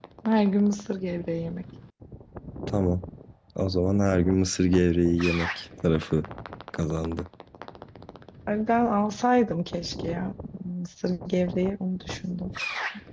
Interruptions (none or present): none